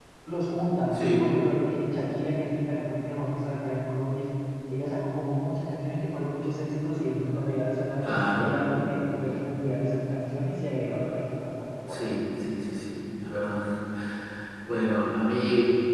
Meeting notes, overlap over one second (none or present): none